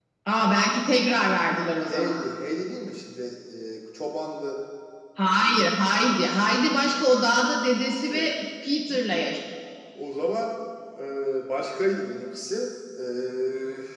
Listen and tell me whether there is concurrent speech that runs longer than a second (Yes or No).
No